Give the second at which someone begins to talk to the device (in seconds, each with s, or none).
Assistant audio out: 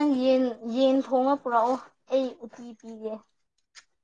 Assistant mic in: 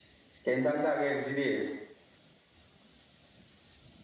0.4 s